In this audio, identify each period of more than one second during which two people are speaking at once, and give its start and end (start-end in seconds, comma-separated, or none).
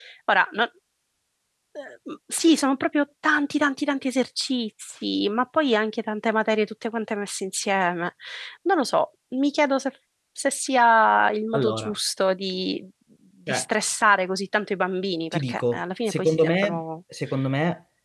15.3-16.8